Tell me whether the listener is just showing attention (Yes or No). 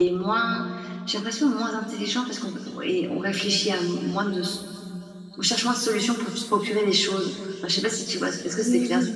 No